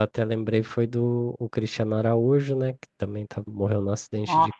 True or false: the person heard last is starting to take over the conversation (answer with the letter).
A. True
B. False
B